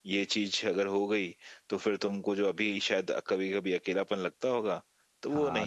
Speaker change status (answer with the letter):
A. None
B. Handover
B